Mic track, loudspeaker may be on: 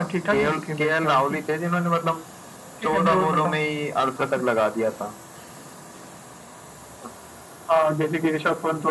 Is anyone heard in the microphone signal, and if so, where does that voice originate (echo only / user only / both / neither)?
echo only